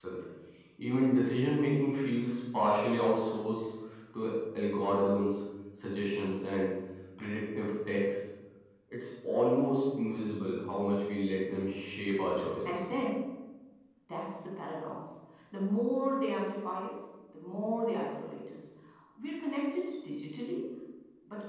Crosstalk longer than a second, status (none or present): none